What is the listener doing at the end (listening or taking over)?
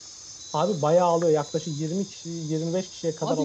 taking over